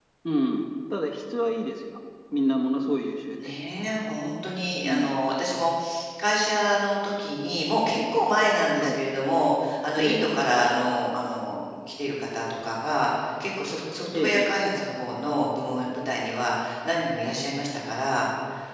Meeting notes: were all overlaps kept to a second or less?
Yes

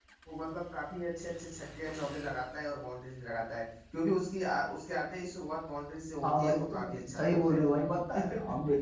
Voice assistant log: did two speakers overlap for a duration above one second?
Yes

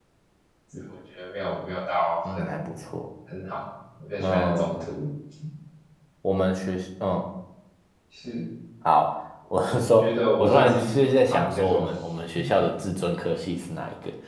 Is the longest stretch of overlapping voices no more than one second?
No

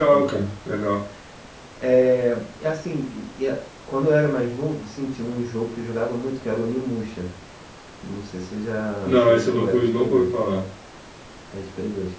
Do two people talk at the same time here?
Yes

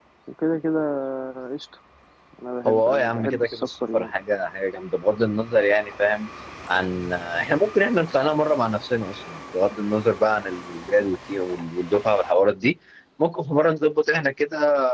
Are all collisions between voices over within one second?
No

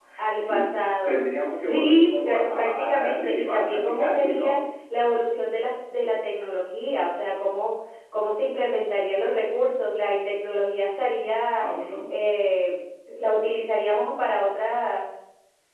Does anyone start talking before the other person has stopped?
Yes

